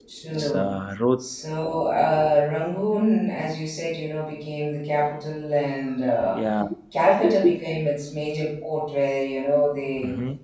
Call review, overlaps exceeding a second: none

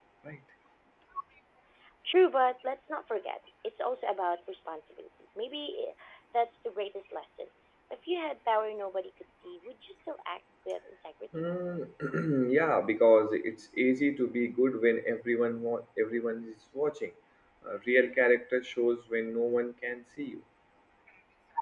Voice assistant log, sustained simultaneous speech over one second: none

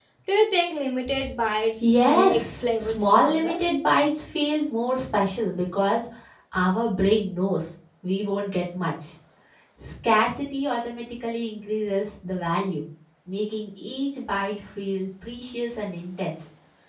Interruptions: present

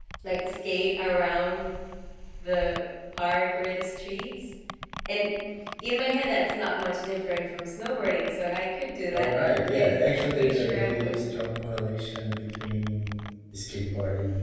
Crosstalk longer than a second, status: present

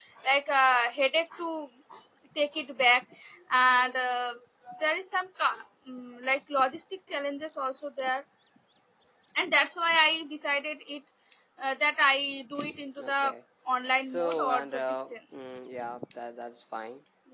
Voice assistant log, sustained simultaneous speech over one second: present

